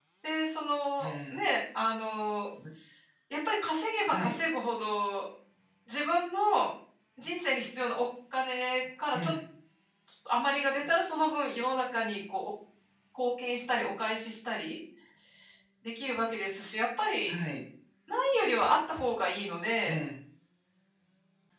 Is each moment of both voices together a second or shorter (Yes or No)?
Yes